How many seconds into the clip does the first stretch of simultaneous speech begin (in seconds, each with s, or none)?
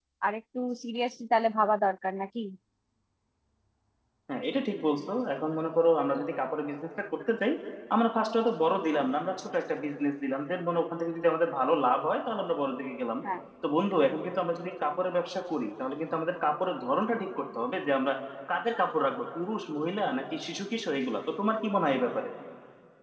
none